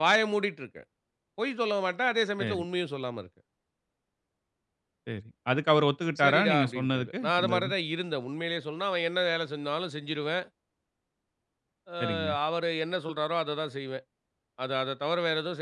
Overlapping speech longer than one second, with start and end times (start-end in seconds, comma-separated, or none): 6.2-7.7